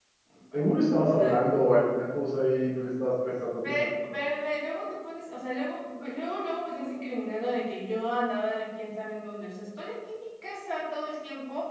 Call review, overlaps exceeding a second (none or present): none